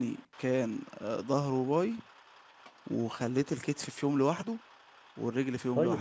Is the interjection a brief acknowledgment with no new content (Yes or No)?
No